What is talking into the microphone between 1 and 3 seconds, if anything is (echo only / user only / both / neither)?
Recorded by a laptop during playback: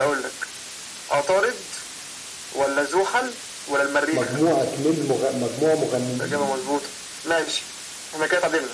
echo only